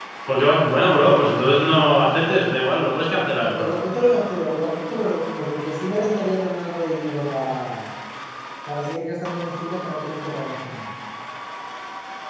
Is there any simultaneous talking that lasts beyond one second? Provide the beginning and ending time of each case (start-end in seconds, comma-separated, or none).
none